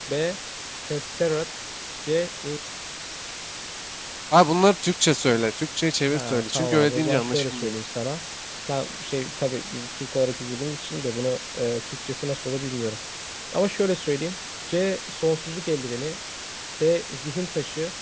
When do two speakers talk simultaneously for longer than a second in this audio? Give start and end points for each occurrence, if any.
6.1-7.8

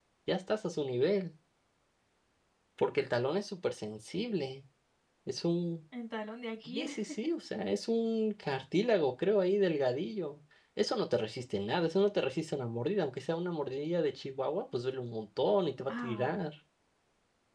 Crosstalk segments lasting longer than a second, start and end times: none

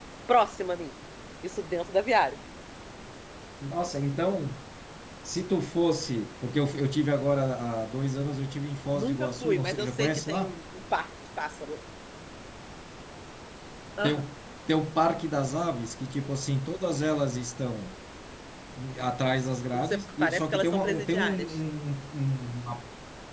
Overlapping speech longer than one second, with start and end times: 8.9-10.6, 19.7-21.6

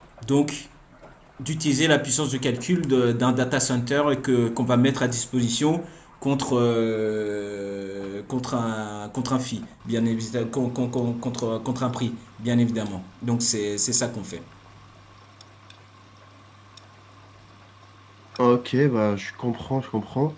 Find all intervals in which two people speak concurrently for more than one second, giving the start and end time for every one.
none

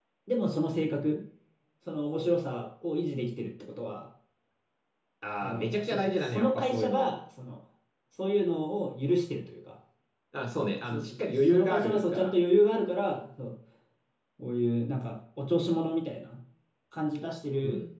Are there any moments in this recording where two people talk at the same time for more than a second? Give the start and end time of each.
5.4-7.1, 10.8-12.3

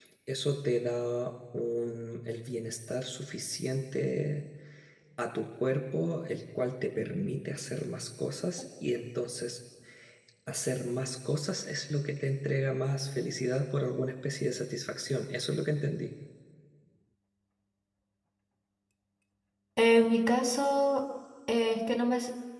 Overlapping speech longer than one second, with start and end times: none

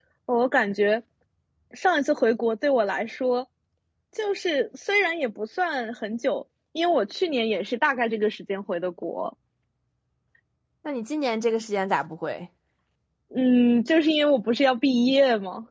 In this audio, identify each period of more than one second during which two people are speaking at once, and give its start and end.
none

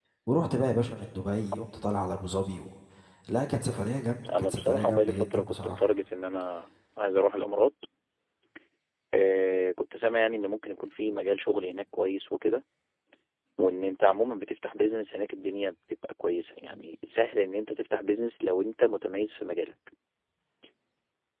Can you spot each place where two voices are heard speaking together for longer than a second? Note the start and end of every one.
4.4-5.9

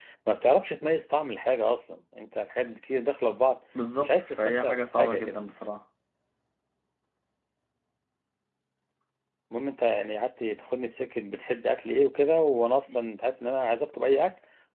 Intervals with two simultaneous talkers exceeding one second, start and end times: 4.0-5.4

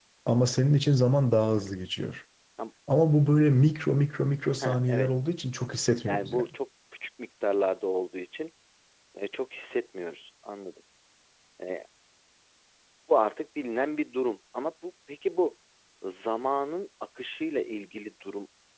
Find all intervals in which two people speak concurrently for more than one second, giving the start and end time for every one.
none

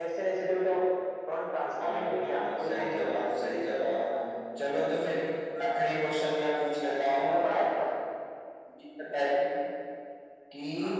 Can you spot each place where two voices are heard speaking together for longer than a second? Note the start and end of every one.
1.8-4.1

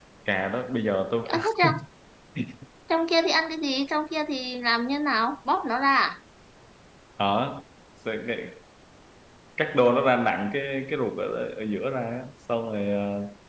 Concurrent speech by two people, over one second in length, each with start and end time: none

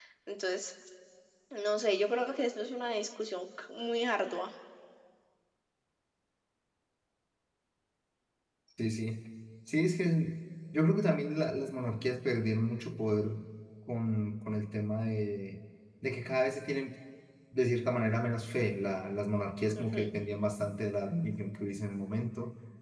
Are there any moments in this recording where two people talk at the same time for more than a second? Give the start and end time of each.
none

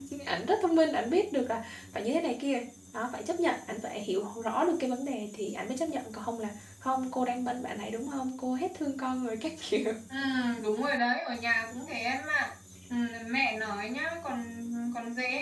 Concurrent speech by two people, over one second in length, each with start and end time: none

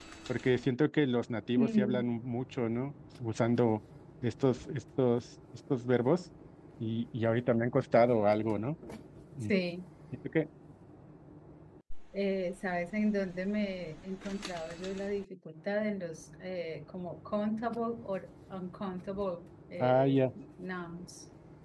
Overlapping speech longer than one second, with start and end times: none

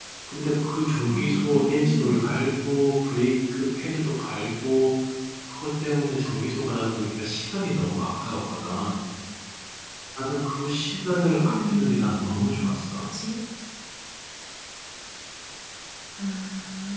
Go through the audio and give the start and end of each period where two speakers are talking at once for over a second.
1.1-2.4, 11.4-13.0

